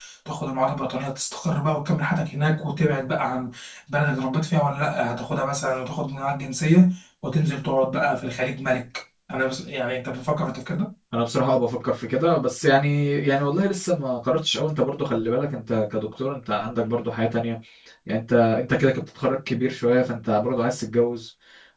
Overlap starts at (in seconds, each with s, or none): none